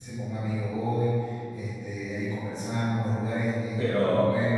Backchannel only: No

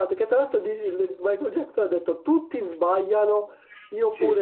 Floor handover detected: No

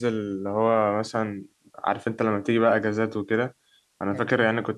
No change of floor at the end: Yes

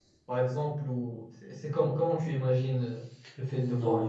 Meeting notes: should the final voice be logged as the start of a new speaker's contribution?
Yes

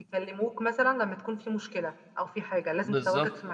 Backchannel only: No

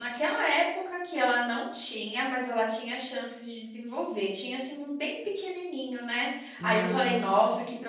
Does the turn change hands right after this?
No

